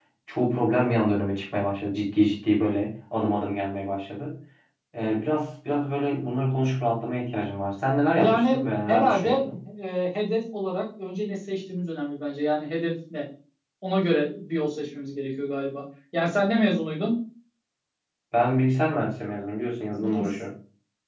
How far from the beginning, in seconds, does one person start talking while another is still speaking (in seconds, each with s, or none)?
8.2 s